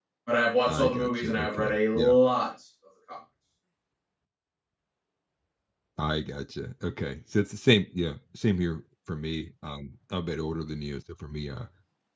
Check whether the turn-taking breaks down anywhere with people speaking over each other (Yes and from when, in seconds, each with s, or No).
Yes, from 0.7 s